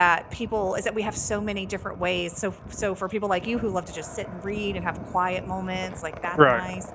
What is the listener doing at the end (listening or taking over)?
listening